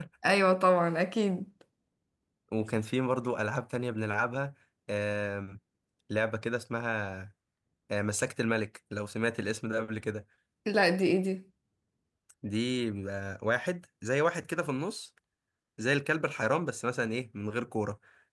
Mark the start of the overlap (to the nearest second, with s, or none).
none